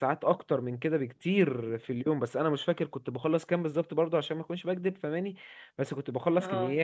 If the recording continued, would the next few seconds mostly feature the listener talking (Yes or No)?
No